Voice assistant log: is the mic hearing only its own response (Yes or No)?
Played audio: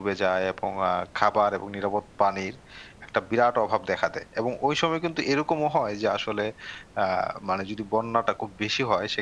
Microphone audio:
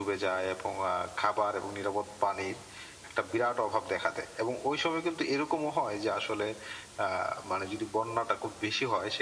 Yes